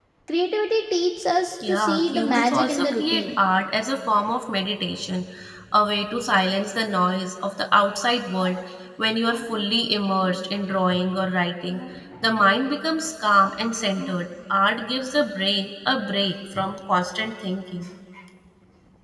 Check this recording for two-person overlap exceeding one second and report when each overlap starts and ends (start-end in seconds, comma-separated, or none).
1.7-3.4